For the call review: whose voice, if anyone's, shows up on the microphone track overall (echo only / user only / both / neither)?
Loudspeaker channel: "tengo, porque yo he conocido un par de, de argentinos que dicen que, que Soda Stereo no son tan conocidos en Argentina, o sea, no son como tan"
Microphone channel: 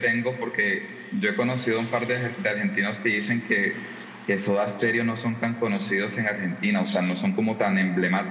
echo only